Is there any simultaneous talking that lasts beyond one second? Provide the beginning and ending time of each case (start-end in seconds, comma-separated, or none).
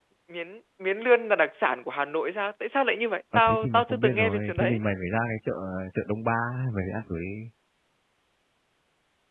3.4-4.8